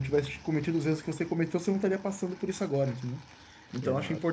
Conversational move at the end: listening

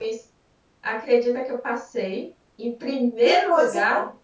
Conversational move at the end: taking over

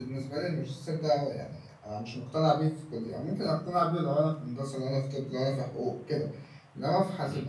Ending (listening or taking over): listening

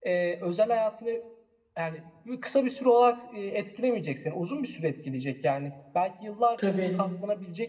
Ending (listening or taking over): listening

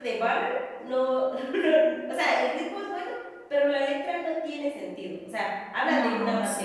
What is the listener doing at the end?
listening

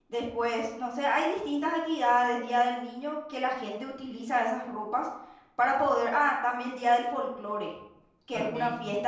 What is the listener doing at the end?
listening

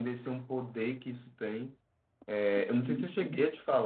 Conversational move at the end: listening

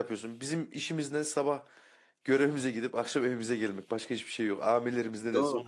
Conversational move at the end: taking over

